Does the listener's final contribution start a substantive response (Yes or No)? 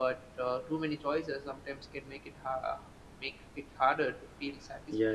Yes